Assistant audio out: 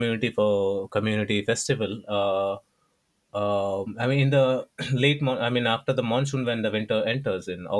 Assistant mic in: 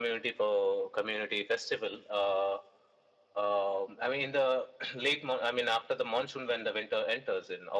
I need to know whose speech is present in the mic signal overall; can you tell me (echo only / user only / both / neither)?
echo only